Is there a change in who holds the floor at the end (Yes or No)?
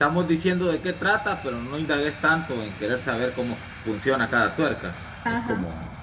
No